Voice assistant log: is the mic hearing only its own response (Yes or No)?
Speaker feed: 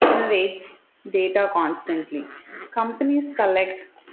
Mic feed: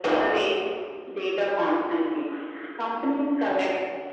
Yes